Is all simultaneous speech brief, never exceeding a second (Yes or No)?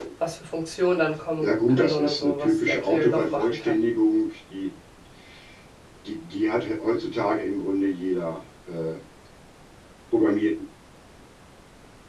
No